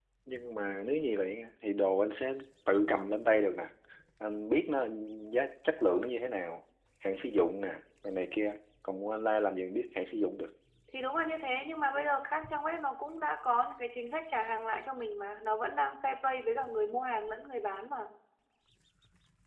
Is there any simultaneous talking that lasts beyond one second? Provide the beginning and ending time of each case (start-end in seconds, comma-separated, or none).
none